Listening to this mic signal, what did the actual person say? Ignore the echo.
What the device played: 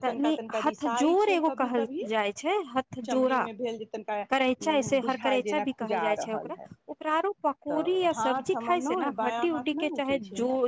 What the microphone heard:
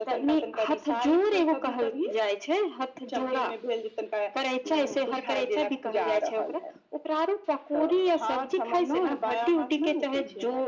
none

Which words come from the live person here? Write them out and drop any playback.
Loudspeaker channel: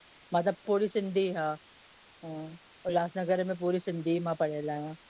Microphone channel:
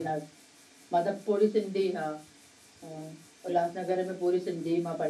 none

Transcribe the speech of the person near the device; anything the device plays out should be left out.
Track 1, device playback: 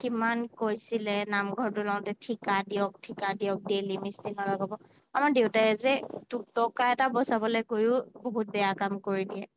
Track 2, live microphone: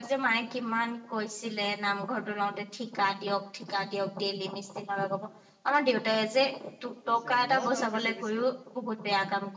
পিছে ময়ো যাওঁ পিছে পিছে

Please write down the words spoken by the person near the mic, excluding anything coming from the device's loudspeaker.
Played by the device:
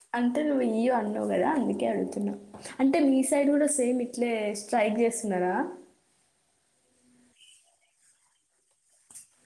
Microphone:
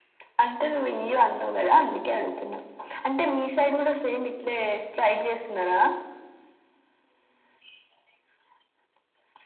none

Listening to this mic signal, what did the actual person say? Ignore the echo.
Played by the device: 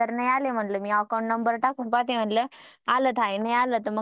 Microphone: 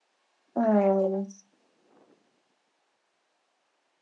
हम्

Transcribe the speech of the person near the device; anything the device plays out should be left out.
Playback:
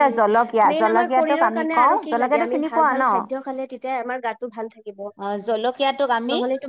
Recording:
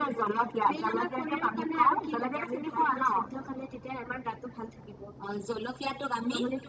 none

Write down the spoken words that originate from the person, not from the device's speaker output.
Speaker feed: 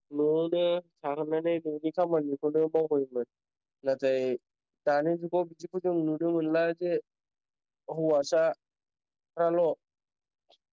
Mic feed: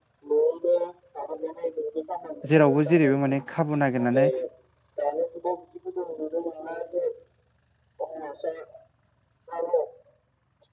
जेरावबो जेरैबो माने खाबु नागिरनानै

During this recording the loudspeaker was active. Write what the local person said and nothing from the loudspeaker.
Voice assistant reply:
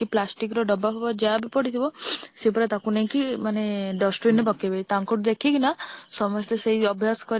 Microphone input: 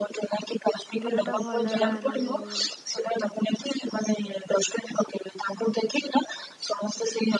ଦିନ ଟା ଭଲରେ ଆରମ୍ଭ ହୁଏ।

